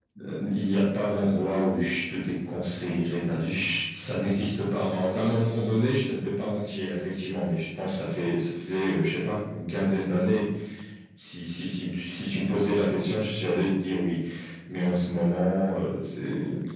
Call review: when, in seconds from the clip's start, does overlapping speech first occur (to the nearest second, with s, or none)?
none